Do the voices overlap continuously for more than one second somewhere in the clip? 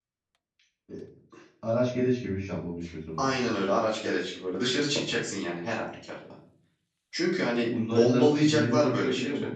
Yes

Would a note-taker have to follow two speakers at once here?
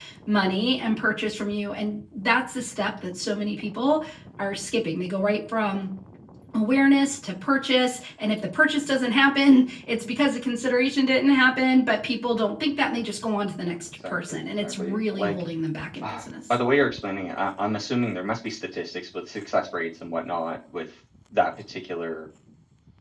Yes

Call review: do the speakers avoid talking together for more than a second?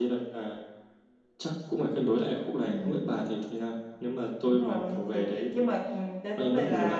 No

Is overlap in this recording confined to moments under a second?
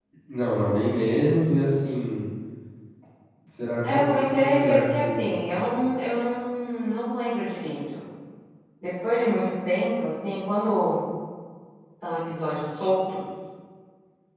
No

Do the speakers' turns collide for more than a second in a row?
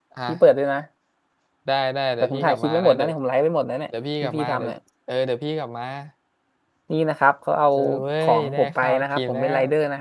Yes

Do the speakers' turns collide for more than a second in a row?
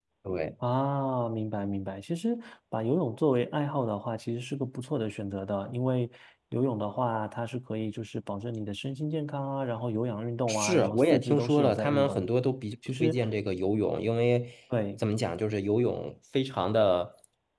Yes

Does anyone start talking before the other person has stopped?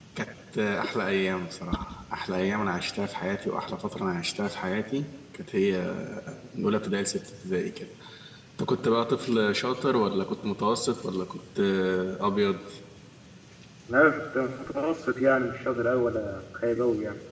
No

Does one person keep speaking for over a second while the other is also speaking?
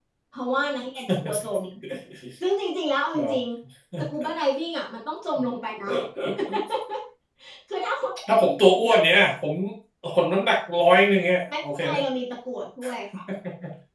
No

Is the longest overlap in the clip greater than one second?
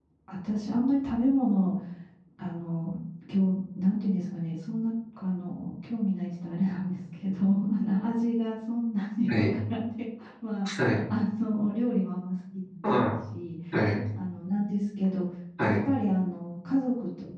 No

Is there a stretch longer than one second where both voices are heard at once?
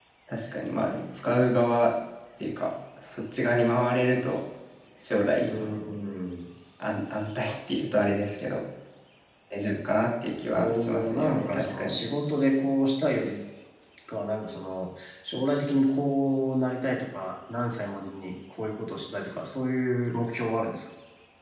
Yes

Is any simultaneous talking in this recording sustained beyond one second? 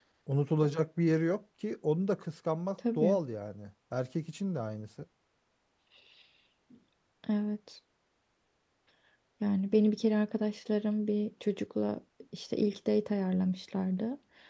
No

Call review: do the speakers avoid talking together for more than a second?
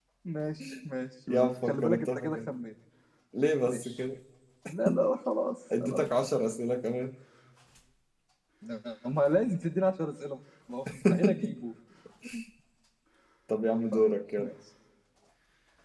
No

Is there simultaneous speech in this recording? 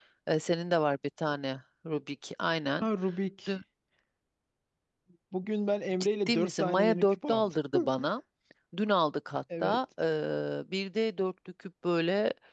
Yes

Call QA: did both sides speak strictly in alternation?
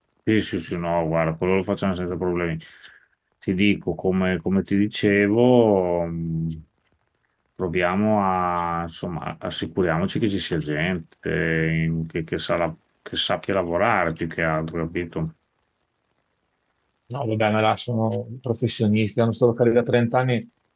Yes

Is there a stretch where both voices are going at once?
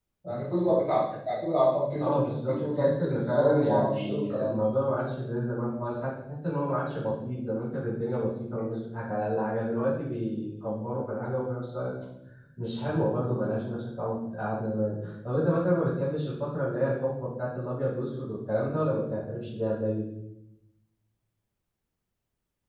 Yes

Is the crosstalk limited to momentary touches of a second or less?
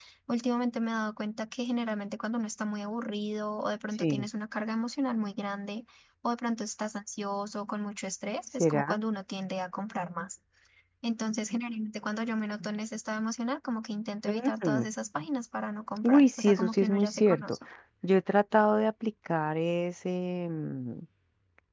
No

